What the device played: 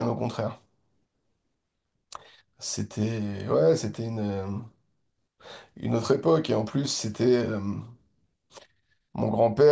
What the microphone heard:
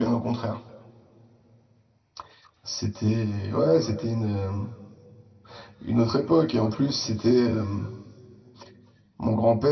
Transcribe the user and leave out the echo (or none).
none